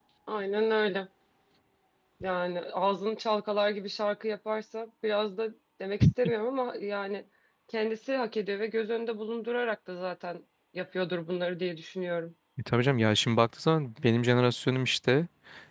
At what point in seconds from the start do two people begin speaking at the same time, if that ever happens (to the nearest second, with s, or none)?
none